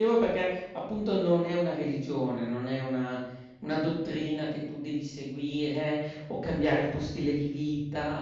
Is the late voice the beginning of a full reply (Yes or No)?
No